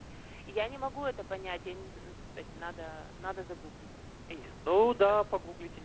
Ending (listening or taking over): taking over